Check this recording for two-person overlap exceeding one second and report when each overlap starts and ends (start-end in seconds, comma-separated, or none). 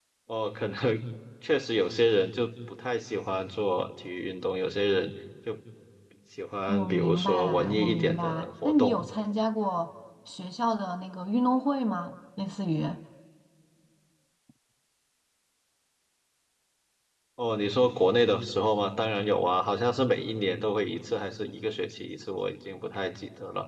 6.7-9.0